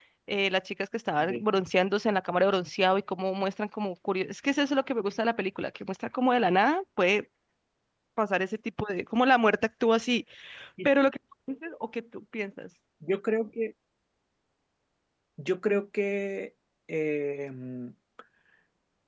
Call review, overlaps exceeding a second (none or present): none